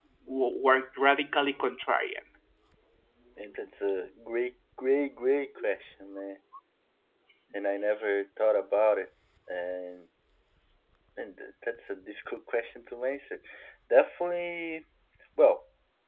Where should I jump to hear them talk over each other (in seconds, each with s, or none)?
none